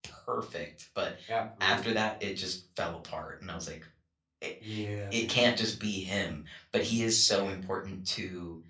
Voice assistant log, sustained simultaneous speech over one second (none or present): none